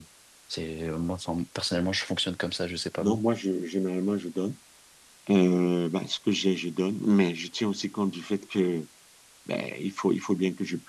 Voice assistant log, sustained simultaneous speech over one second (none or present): none